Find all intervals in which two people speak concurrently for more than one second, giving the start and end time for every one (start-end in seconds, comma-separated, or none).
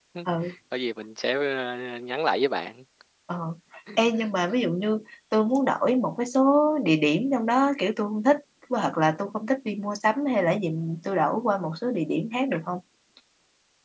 none